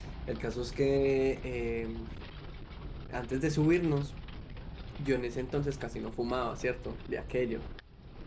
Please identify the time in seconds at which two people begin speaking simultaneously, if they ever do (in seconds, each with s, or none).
none